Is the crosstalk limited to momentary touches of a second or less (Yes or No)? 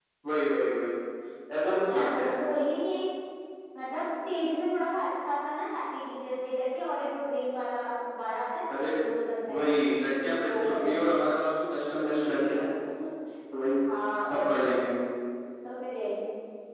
Yes